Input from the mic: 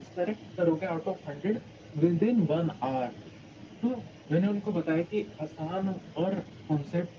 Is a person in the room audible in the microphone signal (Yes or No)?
No